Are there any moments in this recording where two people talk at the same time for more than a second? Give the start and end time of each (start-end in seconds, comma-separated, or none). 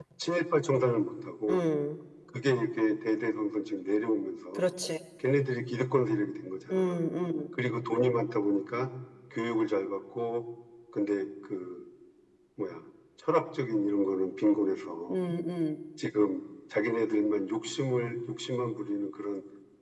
none